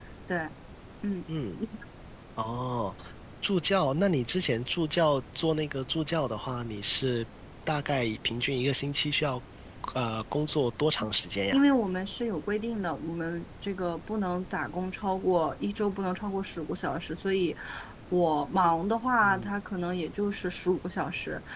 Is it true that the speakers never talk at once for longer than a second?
Yes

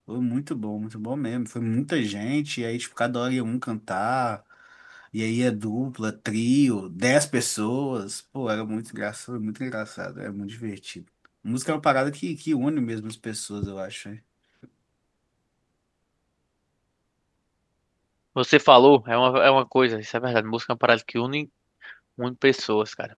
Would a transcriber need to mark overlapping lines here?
No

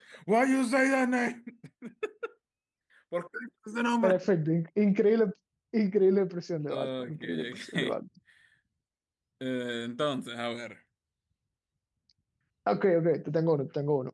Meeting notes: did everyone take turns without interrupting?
No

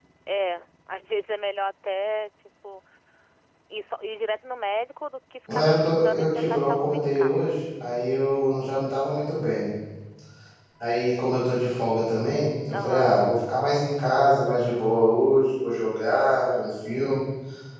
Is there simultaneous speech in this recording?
Yes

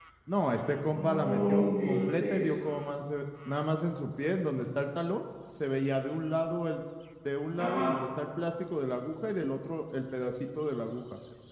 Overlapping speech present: Yes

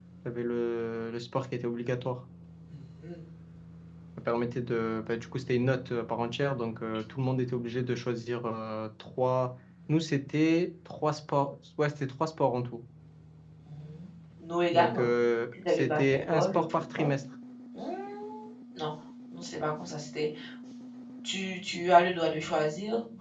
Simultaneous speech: Yes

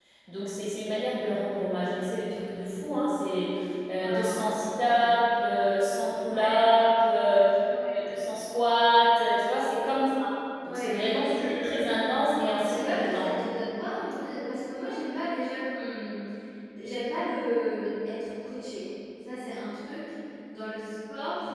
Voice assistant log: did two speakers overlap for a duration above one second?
Yes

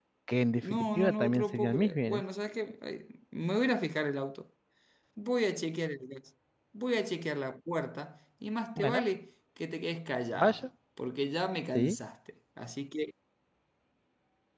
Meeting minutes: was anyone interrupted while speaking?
Yes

